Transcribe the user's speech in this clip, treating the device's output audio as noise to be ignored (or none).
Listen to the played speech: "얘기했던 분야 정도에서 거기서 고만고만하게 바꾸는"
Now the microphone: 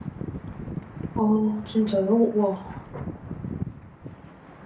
아 진짜요? 우와.